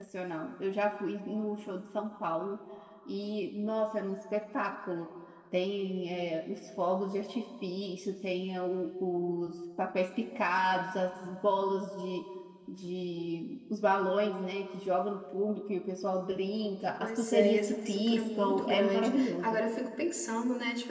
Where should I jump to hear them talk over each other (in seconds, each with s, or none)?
17.0 s